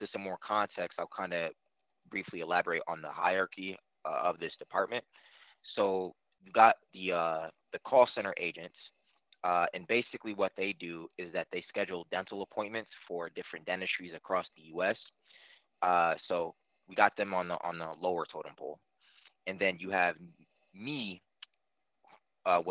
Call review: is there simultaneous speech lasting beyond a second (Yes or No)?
No